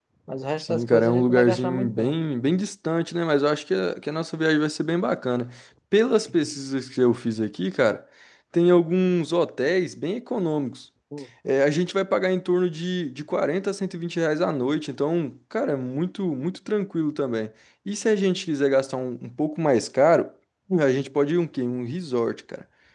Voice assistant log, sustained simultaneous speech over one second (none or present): present